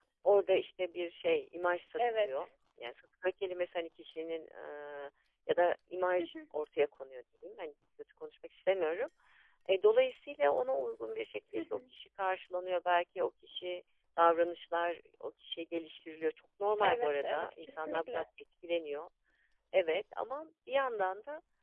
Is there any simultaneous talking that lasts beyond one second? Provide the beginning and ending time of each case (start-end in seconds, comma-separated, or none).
16.8-18.2